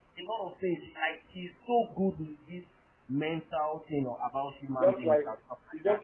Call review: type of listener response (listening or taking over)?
taking over